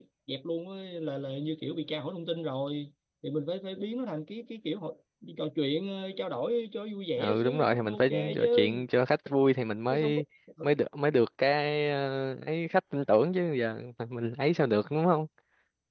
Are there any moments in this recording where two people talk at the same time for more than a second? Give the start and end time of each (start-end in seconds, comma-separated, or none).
7.2-8.7